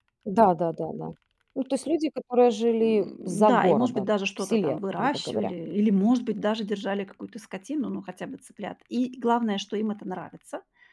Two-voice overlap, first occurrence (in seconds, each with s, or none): 2.8 s